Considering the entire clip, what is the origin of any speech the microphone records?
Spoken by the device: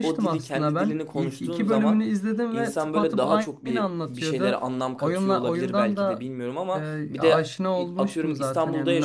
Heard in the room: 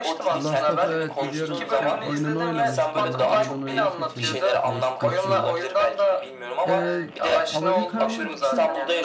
both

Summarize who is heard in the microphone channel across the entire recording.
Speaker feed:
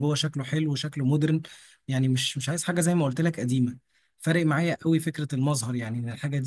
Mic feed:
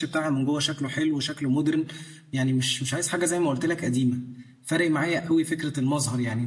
echo only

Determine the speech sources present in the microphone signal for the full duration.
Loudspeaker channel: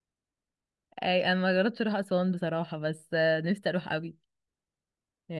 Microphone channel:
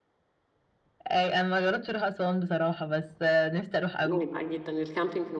both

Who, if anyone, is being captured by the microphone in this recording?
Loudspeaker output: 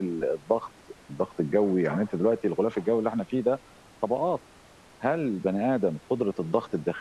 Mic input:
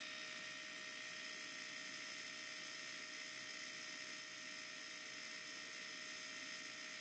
neither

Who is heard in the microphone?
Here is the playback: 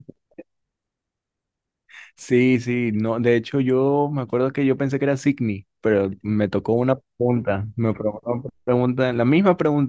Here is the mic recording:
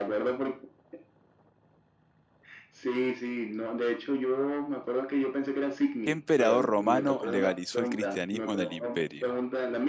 both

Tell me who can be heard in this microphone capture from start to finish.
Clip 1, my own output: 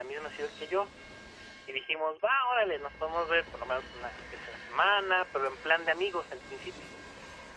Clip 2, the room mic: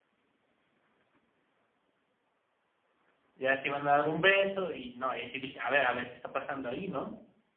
user only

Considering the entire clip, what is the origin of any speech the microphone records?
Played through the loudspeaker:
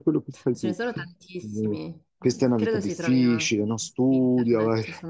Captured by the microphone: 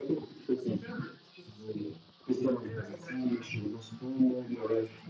echo only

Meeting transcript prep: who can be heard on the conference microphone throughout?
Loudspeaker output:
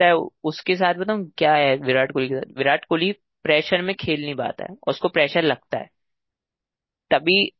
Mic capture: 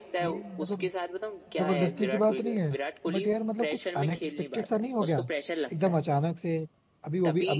both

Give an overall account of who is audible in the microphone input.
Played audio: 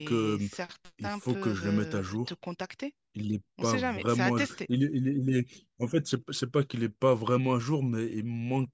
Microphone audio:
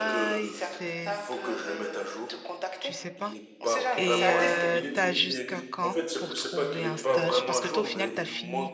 both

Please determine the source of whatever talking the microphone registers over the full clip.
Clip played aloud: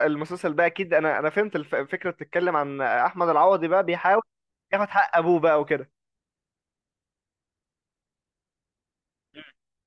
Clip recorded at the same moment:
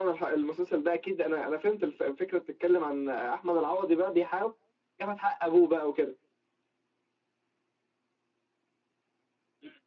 echo only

